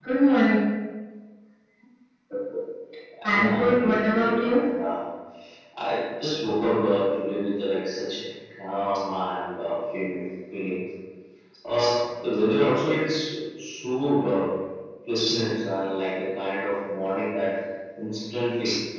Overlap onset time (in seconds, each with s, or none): 3.2 s